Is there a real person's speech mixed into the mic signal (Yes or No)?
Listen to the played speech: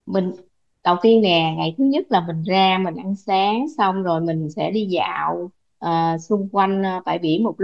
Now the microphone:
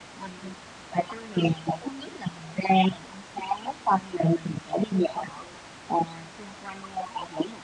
No